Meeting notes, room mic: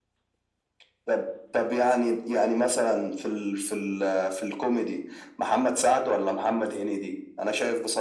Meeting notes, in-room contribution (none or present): none